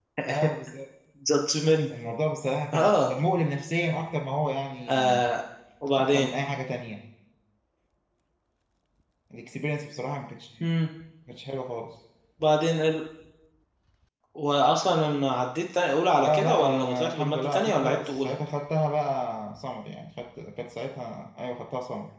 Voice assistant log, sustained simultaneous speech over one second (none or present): present